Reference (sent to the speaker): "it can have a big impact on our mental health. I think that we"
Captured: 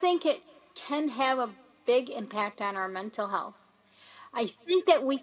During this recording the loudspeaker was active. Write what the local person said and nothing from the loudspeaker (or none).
none